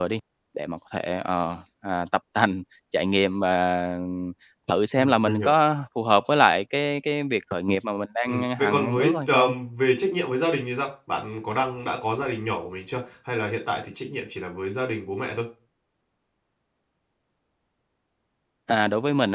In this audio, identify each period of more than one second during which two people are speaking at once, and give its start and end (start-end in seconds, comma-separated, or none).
8.3-9.5